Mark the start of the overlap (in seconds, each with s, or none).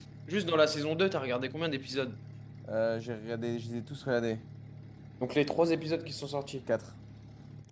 none